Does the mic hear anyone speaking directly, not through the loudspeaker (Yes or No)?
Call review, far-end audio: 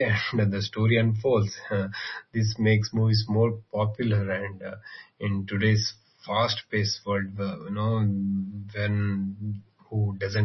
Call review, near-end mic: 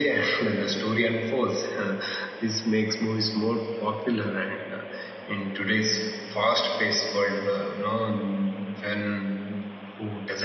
No